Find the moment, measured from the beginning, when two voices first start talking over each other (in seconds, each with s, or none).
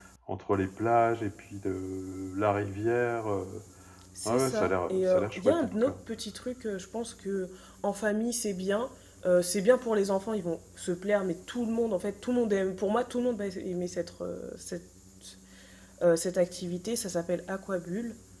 4.2 s